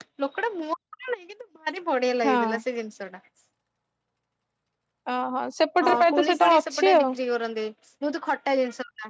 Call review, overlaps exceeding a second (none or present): present